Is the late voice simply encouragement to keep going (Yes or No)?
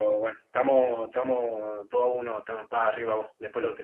No